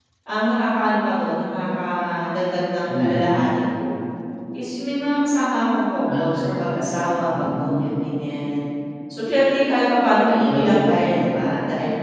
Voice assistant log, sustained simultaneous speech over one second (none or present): present